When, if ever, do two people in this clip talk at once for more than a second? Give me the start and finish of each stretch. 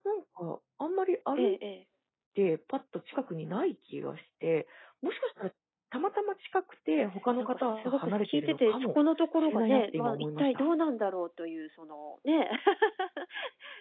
7.4-8.9, 9.4-10.6

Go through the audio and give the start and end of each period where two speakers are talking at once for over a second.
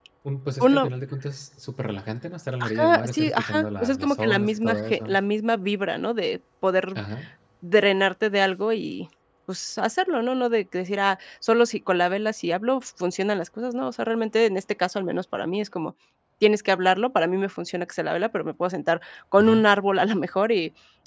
2.6-5.1

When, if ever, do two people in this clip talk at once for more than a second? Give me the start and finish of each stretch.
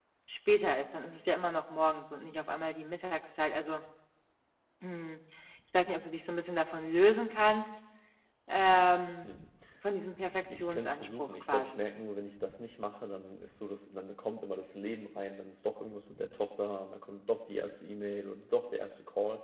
10.3-11.8

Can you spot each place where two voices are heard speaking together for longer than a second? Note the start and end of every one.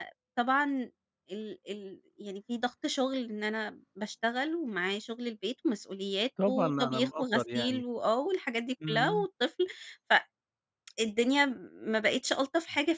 6.5-7.8

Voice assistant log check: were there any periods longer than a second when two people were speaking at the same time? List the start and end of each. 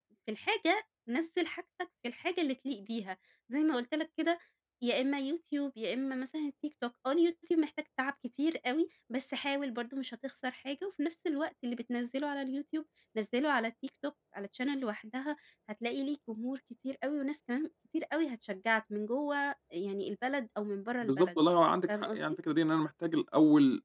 none

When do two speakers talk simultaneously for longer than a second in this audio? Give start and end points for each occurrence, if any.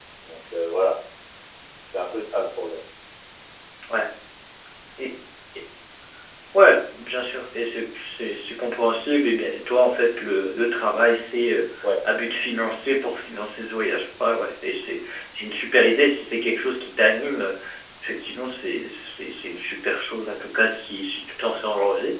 none

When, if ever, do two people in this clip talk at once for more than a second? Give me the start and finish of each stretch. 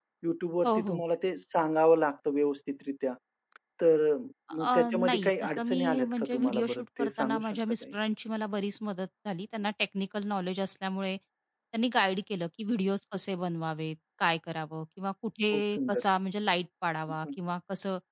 4.6-7.9

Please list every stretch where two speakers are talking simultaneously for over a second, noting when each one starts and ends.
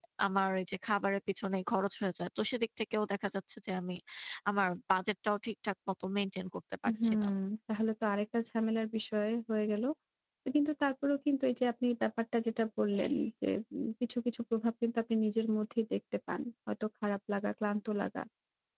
none

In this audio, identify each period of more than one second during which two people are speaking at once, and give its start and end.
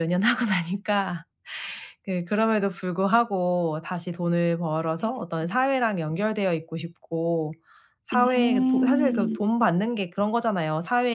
8.1-9.3

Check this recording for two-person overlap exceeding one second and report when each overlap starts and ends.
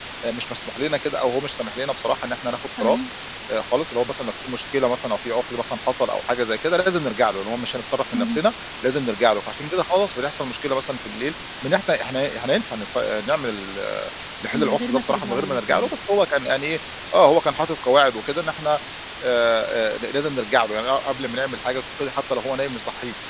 14.5-15.9

